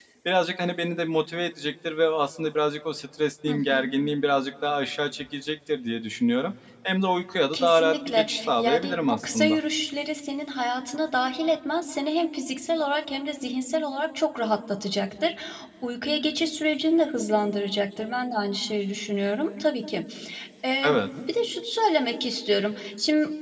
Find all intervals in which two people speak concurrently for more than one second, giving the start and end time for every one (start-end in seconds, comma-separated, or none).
7.5-9.6